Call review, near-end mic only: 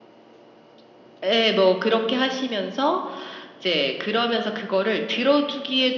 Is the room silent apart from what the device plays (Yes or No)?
Yes